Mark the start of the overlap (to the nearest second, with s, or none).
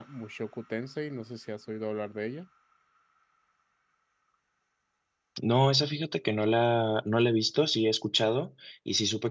none